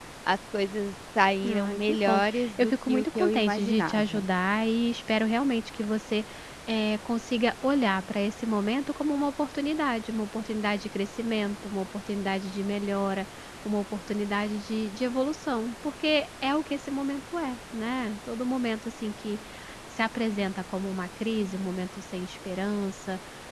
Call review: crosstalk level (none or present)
present